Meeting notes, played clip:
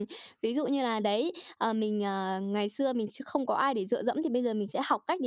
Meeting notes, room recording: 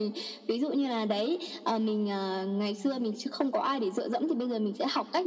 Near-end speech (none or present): none